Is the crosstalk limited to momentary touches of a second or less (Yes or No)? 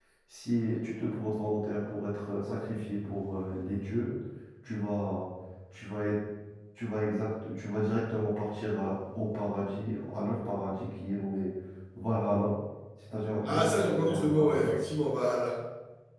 No